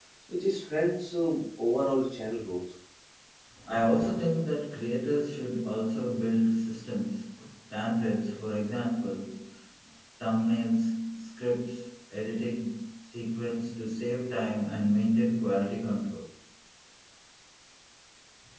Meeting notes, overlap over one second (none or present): none